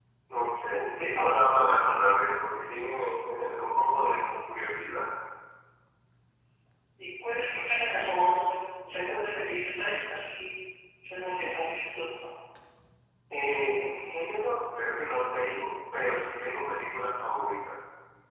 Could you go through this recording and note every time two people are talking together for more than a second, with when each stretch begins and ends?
none

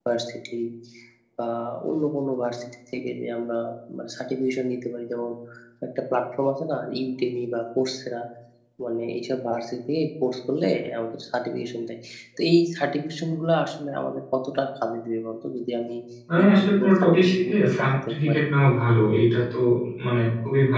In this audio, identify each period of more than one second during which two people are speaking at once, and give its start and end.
16.4-18.4

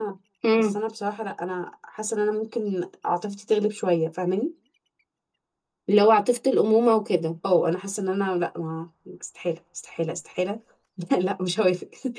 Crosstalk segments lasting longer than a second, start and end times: none

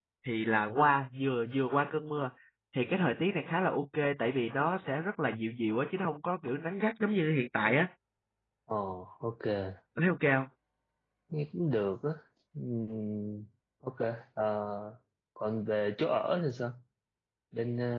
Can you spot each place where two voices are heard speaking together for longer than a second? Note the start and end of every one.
none

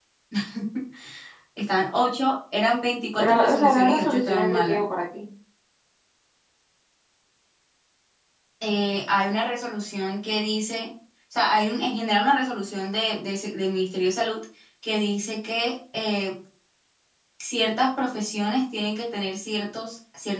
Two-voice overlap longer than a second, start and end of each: 3.2-4.8

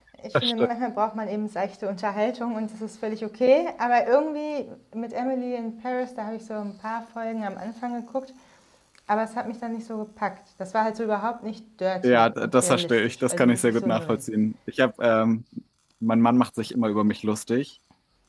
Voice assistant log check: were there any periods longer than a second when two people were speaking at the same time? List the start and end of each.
12.0-14.2

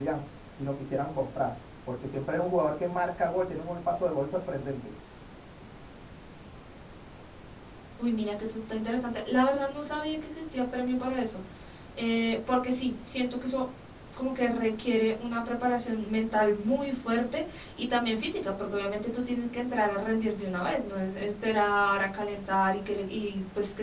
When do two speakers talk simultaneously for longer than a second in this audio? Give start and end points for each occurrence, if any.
none

